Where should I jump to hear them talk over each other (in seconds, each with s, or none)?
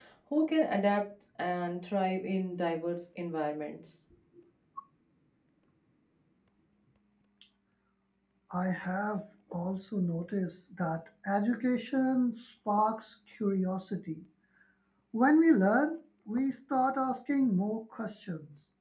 none